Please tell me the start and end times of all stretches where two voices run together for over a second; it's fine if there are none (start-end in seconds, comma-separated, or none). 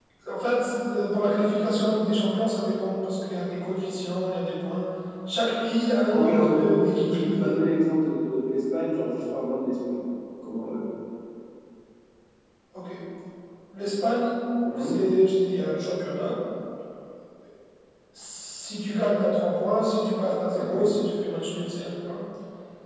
6.1-7.5